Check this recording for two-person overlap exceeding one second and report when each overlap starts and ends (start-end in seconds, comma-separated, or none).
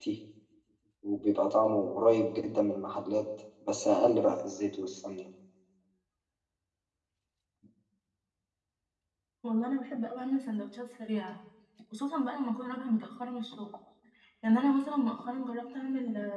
none